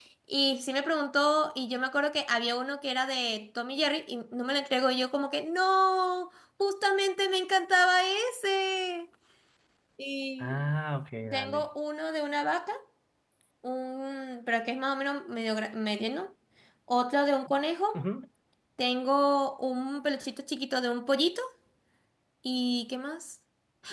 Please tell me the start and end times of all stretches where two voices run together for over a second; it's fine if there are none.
none

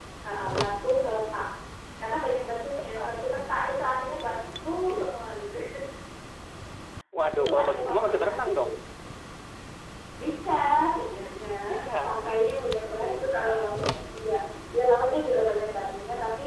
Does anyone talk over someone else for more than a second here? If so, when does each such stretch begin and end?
7.4-8.6

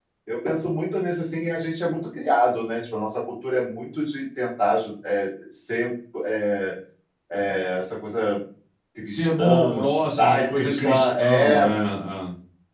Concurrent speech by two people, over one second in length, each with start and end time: 9.1-11.6

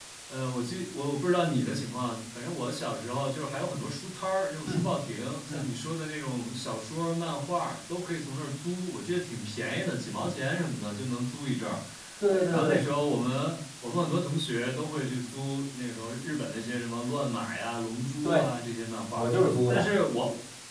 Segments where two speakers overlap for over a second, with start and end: none

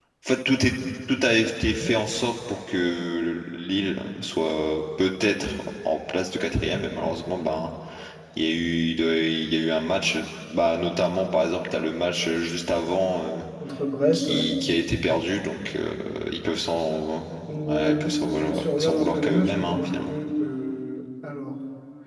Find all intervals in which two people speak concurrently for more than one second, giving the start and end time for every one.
17.7-20.1

